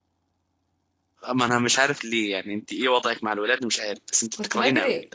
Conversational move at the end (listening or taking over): taking over